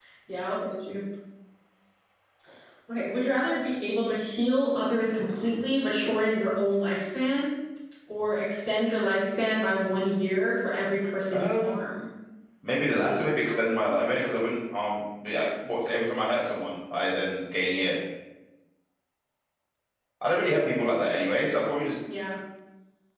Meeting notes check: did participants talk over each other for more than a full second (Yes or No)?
No